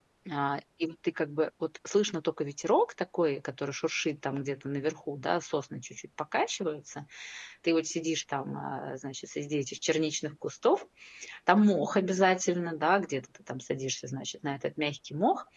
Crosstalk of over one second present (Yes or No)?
No